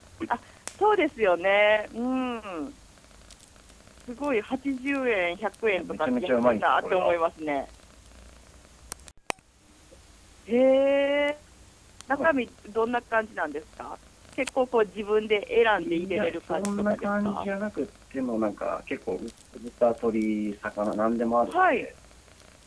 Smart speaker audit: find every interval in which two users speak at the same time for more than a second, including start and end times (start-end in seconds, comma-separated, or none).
5.7-7.2, 15.8-17.5